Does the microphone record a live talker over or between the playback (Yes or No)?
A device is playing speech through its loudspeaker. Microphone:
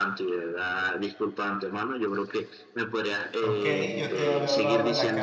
Yes